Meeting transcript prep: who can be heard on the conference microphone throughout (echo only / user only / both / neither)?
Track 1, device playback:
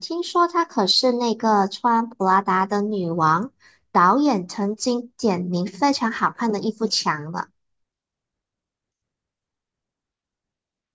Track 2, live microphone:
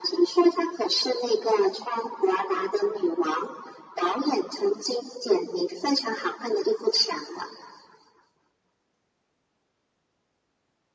echo only